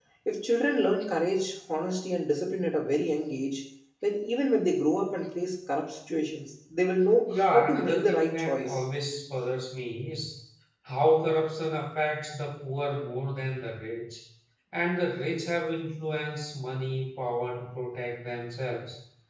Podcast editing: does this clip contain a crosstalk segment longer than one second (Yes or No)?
Yes